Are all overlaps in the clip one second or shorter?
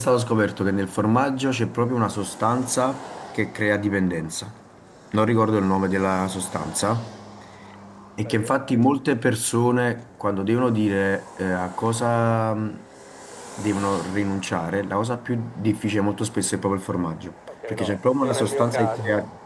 No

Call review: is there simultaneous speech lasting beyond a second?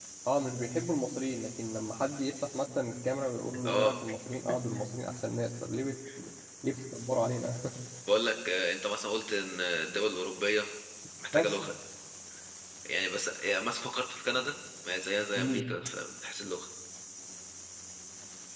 No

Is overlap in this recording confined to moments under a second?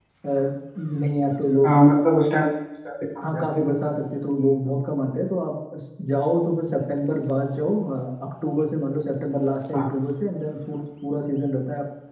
Yes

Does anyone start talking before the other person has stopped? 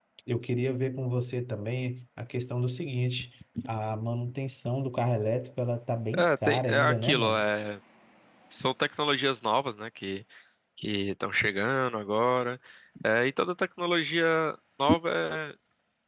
Yes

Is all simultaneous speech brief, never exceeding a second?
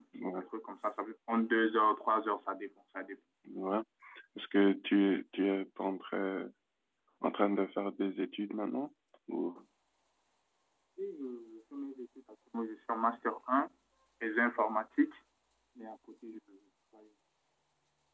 Yes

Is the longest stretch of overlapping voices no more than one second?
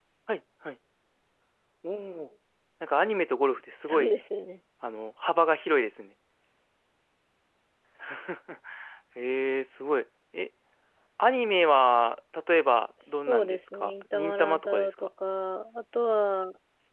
No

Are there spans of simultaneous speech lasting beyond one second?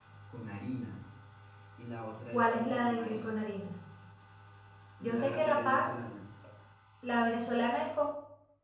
Yes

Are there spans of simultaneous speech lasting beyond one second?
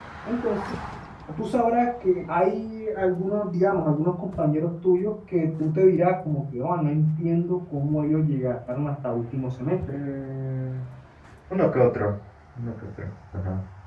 No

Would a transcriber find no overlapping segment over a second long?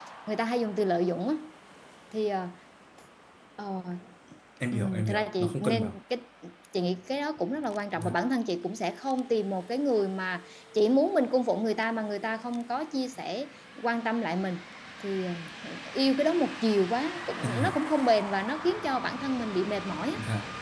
No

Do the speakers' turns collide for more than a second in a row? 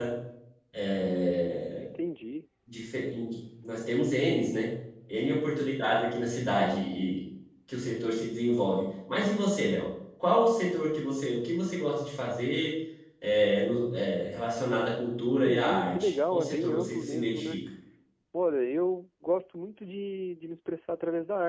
Yes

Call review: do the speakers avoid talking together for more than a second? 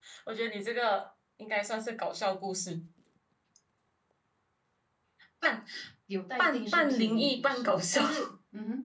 No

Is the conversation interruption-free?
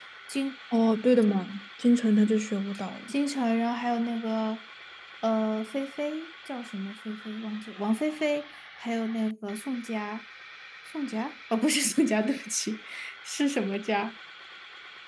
Yes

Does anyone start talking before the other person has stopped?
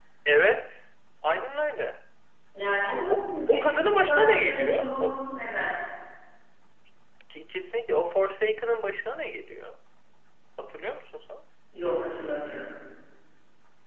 Yes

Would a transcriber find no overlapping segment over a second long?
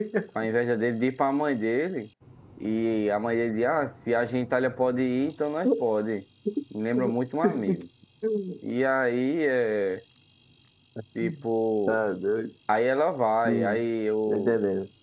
Yes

